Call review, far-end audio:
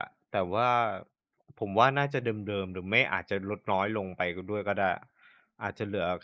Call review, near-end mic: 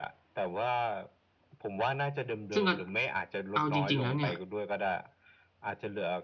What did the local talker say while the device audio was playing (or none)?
ซึ่งอัจ เอาจริง ๆ แล้วเนี่ย